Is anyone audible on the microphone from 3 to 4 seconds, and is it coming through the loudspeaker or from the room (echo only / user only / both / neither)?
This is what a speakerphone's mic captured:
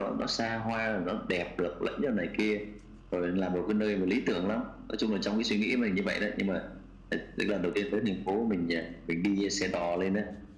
echo only